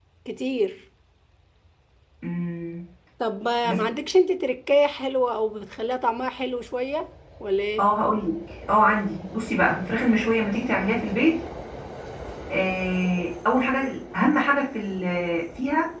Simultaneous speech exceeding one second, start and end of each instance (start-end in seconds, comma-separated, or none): none